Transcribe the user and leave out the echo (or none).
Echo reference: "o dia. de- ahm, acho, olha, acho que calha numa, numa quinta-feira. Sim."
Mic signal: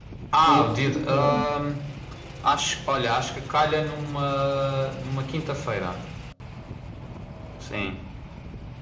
pensava que seria agora.